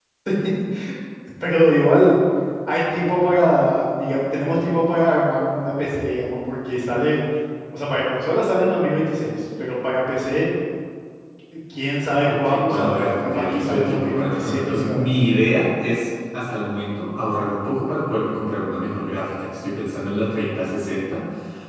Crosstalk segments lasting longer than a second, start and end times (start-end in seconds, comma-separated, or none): 12.2-15.2